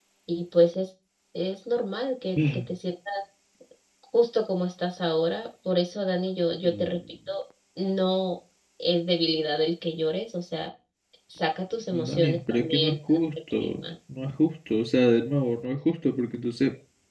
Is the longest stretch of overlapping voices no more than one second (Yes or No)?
No